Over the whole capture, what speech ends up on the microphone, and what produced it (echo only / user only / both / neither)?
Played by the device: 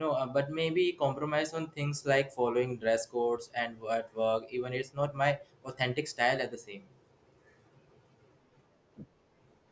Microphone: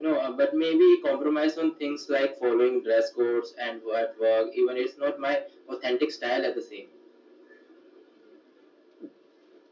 echo only